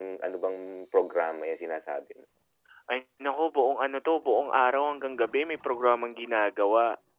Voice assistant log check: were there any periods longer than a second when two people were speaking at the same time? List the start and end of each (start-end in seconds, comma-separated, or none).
none